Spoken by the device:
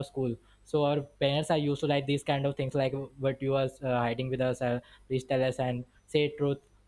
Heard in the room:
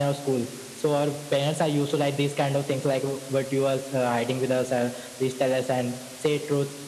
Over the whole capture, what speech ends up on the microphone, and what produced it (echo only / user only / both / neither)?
echo only